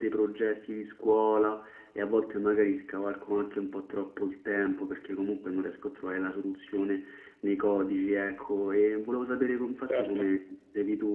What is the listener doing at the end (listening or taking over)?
listening